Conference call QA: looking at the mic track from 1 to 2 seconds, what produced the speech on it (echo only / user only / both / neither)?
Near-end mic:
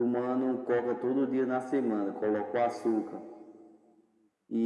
echo only